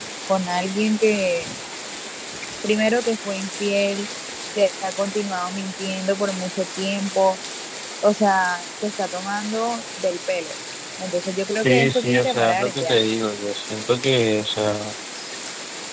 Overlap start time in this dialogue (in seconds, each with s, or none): 11.5 s